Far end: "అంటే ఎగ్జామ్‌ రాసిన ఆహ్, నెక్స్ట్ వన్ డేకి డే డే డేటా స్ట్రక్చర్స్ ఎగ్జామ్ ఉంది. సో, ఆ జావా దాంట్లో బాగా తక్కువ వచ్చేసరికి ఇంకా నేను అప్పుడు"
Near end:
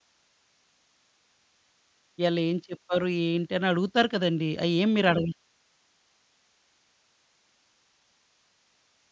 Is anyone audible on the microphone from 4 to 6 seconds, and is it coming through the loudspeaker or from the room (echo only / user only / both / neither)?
user only